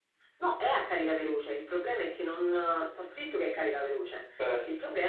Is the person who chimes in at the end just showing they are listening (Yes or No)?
Yes